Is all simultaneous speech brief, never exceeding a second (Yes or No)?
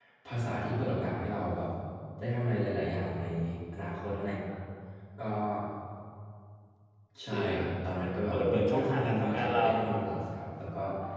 No